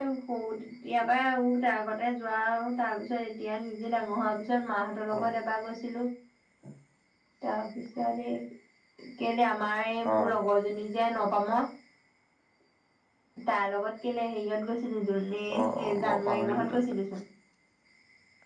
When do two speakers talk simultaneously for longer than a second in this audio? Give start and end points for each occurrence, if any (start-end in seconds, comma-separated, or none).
15.6-16.8